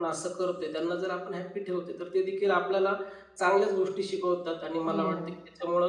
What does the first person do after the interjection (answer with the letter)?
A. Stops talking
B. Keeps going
B